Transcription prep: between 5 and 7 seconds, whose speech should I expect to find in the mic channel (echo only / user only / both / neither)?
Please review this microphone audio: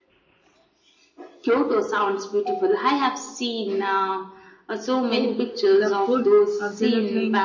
both